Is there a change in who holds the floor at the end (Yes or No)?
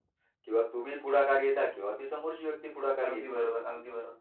Yes